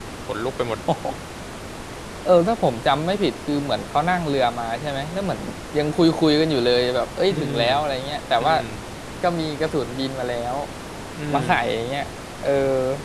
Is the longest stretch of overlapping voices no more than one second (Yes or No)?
Yes